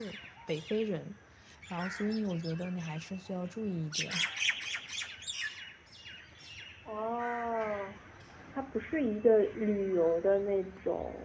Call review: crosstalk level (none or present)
none